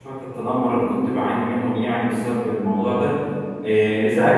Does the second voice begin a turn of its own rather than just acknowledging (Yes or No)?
No